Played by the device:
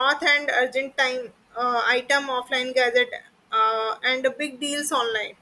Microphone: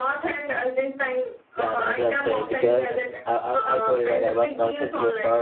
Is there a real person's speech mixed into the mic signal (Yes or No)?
Yes